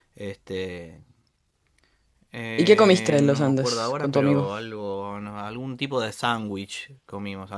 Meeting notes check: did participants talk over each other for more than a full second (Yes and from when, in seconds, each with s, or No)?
Yes, from 2.6 s